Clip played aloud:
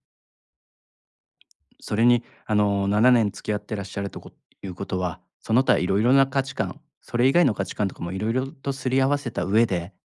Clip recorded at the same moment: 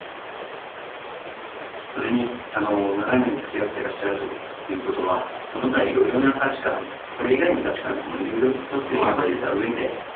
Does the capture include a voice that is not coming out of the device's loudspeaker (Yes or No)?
Yes